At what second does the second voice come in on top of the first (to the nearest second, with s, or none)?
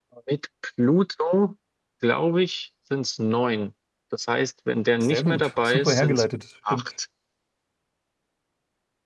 5 s